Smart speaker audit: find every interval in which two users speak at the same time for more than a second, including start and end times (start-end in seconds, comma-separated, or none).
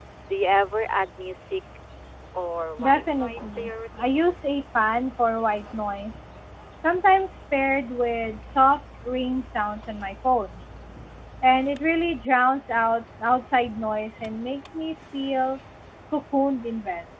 2.8-4.4